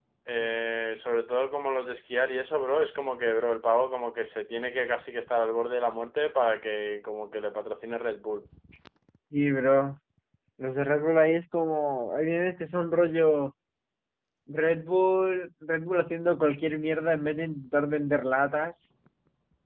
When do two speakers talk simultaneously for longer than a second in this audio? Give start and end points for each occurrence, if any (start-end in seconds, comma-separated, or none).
none